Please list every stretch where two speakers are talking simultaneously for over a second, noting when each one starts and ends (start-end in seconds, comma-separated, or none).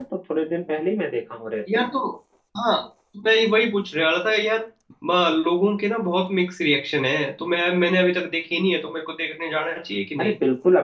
none